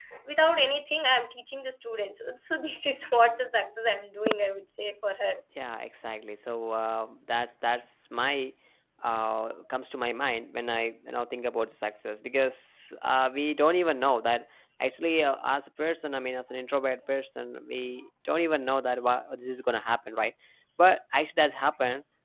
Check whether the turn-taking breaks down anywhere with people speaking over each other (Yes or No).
No